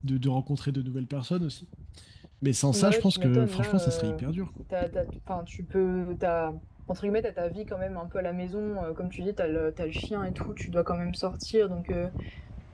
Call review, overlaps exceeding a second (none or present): present